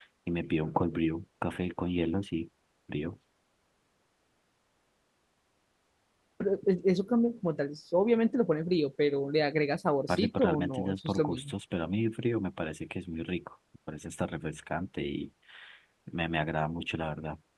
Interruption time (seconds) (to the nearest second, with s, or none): 10 s